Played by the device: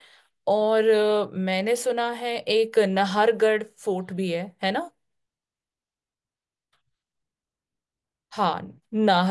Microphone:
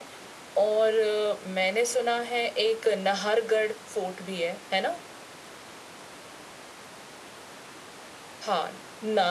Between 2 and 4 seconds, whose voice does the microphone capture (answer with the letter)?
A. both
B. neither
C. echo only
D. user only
C